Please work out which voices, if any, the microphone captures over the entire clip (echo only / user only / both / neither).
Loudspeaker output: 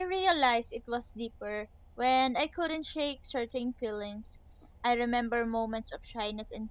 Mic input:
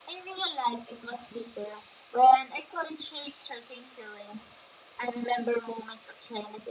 echo only